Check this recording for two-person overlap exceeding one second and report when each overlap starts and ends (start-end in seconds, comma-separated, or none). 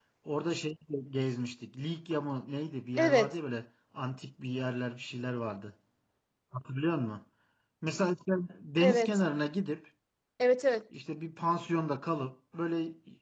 none